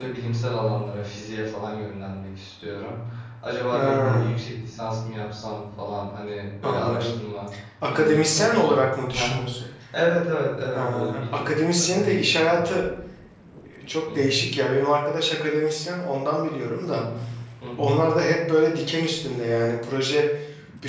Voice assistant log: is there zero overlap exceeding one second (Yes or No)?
No